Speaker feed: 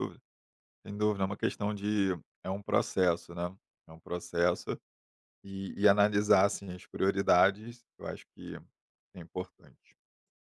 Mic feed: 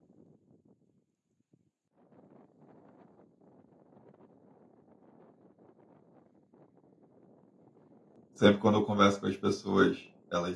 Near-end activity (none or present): present